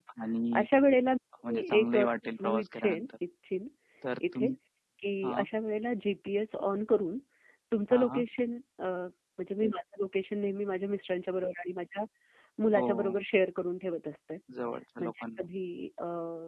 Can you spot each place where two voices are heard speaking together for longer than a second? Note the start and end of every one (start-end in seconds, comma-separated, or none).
1.5-3.1